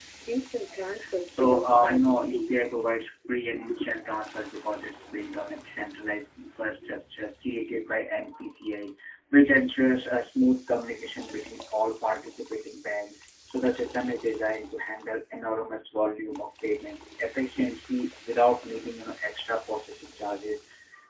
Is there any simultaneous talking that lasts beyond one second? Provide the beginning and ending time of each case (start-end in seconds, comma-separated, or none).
1.4-2.6